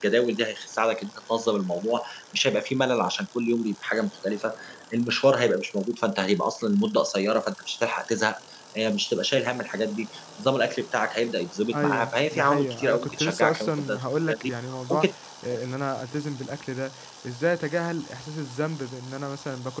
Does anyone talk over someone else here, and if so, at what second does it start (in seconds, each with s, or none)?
11.7 s